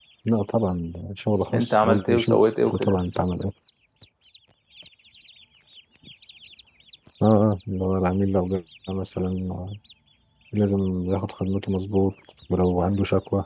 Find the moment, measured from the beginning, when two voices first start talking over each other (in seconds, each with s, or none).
1.5 s